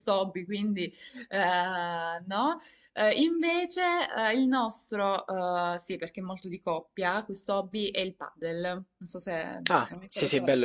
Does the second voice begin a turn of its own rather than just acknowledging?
Yes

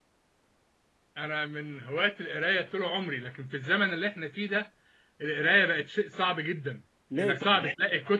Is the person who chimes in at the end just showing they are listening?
Yes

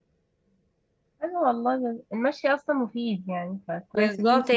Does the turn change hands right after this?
Yes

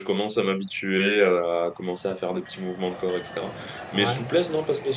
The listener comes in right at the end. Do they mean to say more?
No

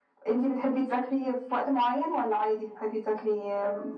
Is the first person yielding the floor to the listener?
Yes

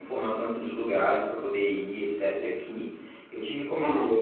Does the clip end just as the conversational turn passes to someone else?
No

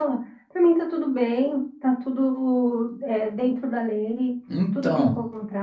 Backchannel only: Yes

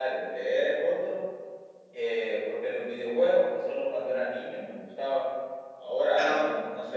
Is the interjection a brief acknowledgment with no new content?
Yes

